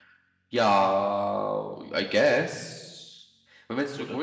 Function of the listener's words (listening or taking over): listening